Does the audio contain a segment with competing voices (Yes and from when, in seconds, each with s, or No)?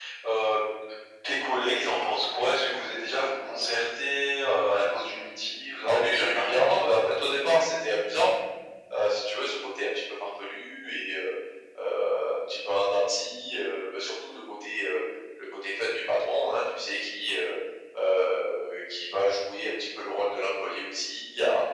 Yes, from 5.9 s